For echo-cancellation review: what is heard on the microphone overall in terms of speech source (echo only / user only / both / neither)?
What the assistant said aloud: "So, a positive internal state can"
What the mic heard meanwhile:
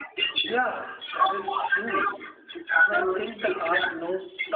both